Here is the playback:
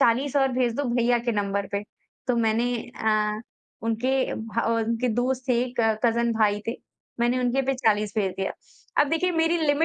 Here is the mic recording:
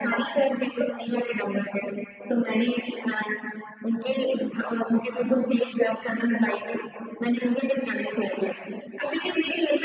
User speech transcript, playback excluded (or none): none